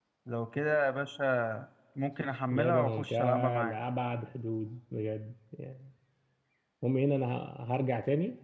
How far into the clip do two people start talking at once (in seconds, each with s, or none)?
2.5 s